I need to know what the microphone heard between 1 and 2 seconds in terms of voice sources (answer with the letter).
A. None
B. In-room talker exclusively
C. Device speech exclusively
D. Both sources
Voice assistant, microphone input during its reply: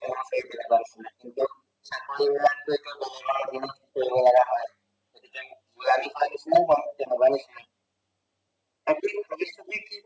C